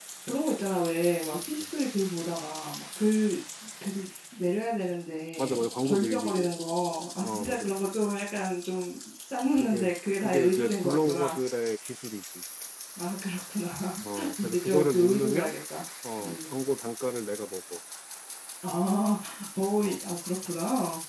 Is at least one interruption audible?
Yes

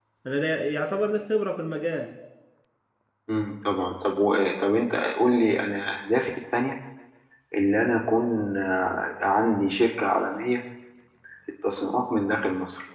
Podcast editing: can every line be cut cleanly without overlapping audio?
Yes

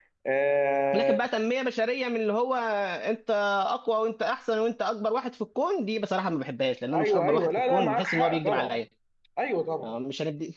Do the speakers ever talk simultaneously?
Yes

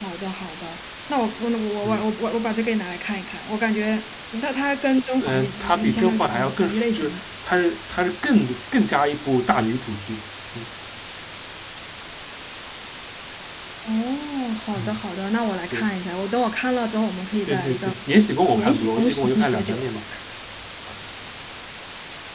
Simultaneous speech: Yes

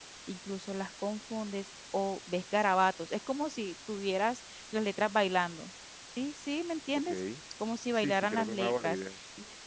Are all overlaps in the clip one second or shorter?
No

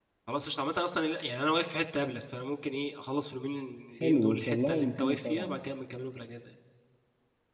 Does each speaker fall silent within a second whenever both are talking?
No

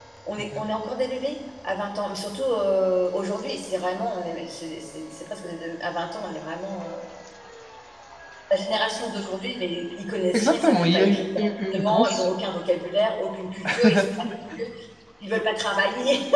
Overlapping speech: Yes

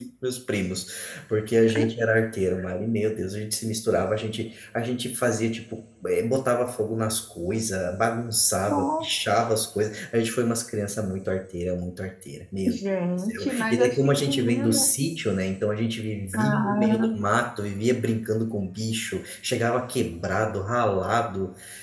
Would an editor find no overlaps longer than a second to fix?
No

